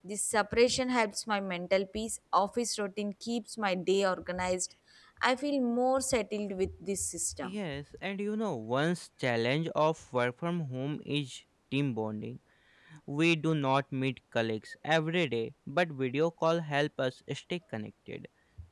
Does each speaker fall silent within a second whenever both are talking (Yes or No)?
Yes